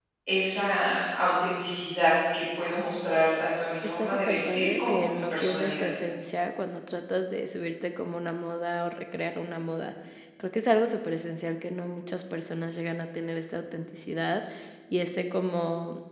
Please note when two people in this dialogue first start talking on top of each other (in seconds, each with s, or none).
4.0 s